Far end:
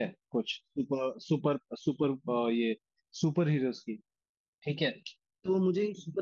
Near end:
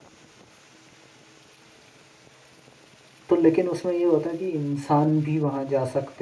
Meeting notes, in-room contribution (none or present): present